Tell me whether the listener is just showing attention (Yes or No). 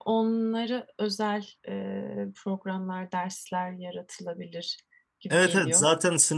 No